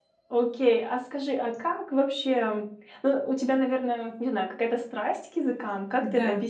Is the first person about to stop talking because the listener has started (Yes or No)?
Yes